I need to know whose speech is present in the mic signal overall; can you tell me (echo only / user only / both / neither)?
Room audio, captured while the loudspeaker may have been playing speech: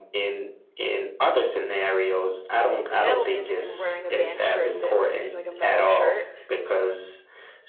both